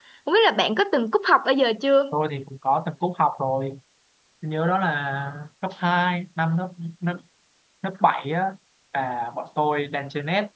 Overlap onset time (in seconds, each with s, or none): none